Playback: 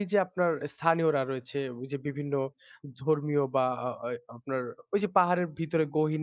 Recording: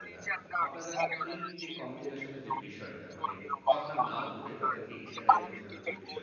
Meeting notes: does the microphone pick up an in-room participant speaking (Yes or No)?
Yes